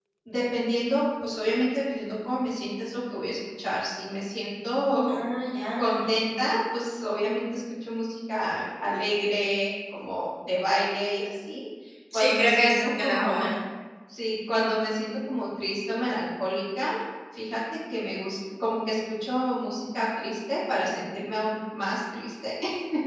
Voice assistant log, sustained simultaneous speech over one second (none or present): present